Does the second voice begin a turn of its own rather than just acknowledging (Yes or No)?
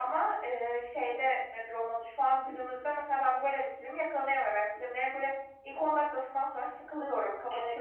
Yes